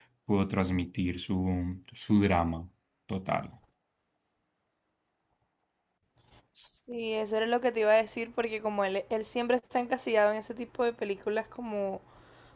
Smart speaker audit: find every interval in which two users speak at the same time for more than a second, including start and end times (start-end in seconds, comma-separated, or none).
none